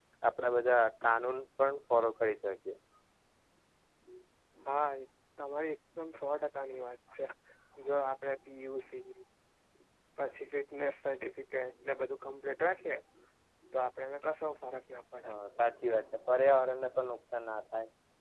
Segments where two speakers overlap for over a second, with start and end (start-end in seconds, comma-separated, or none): none